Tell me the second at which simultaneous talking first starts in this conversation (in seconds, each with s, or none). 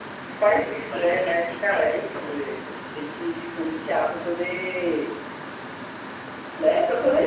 0.9 s